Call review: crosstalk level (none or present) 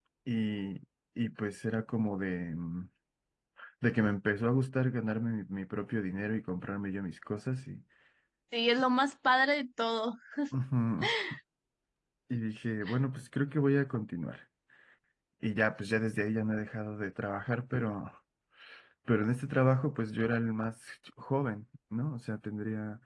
none